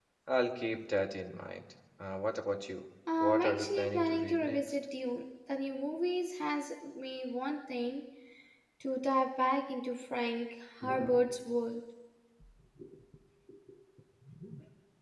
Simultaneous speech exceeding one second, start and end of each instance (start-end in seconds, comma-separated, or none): 3.2-4.6